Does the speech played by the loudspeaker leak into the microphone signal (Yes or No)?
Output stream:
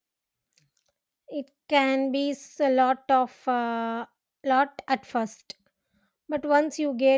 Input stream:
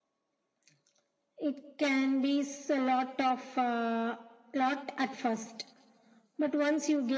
Yes